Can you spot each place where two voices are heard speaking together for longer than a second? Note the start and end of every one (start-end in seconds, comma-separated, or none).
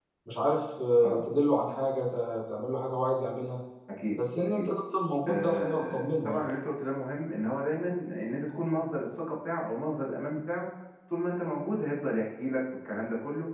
5.3-6.5